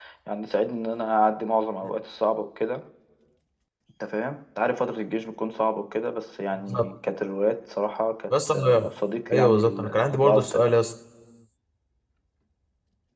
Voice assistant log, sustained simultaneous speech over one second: present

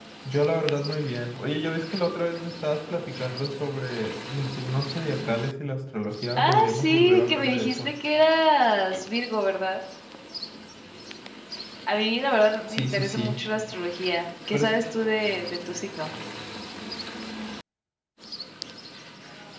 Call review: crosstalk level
present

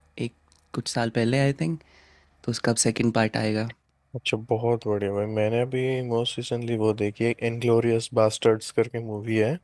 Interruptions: none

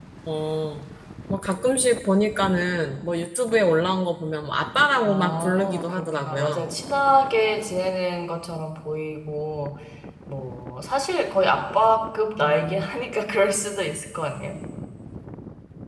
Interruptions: present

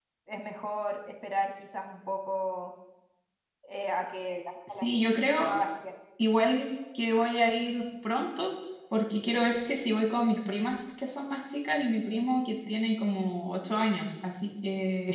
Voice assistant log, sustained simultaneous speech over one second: none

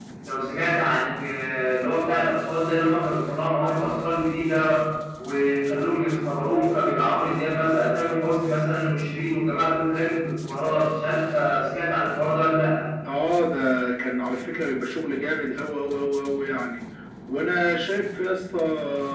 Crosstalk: none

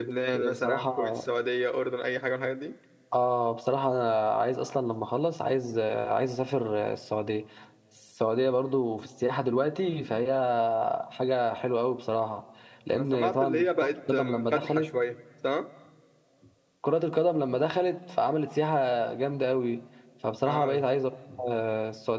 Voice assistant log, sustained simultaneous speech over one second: present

